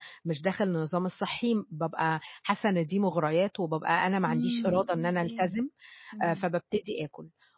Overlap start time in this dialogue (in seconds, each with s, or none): 4.3 s